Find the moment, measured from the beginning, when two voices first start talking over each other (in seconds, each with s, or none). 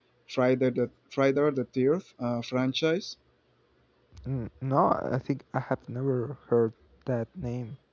none